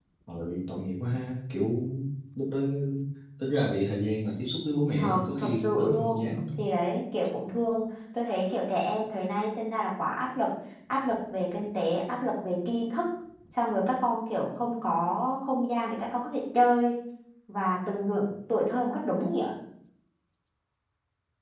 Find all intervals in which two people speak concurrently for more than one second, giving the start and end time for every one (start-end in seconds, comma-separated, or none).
5.0-6.3